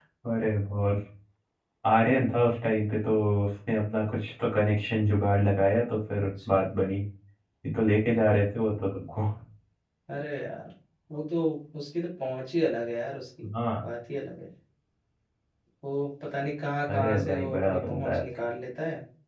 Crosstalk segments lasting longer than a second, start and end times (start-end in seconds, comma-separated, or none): 16.9-18.2